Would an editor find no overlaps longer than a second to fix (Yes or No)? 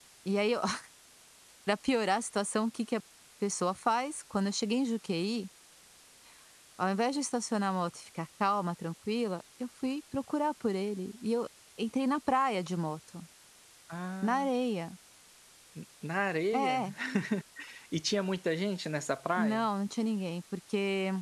Yes